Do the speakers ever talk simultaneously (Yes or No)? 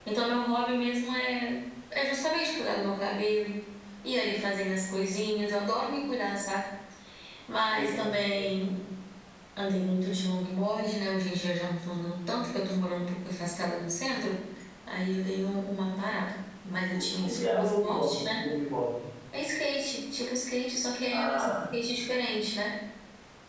Yes